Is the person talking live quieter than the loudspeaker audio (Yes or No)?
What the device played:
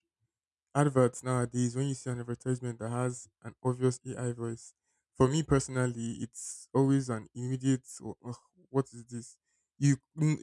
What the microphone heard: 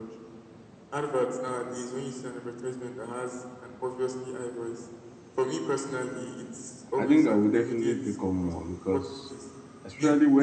No